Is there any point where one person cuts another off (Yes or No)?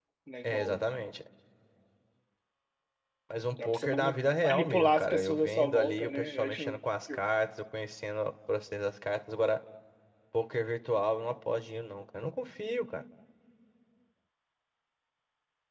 Yes